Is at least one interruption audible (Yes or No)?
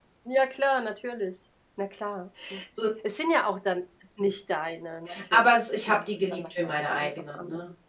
Yes